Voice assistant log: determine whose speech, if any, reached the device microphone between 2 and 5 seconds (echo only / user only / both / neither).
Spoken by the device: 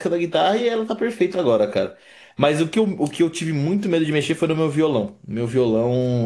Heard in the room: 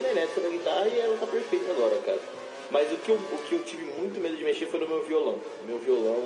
echo only